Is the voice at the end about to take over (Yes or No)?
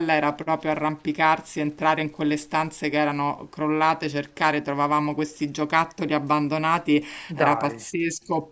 No